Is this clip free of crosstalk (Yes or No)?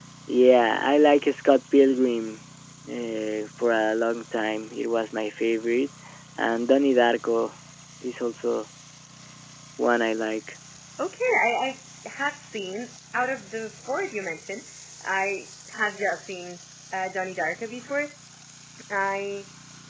Yes